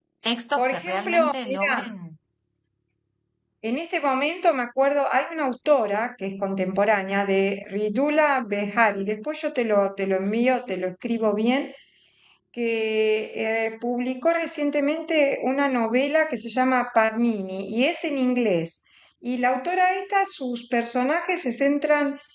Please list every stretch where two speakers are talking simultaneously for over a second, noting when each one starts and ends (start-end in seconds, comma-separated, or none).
0.6-1.9